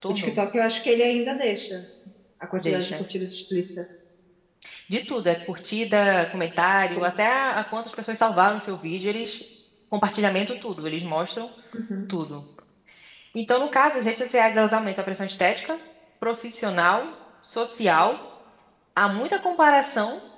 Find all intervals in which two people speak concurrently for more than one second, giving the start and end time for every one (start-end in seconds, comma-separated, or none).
none